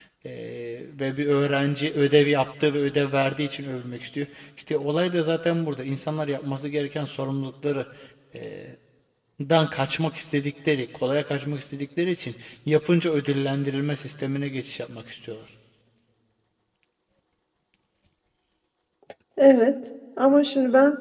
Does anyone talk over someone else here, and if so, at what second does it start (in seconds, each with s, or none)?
none